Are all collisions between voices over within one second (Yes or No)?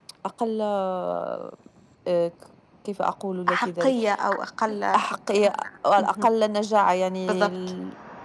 Yes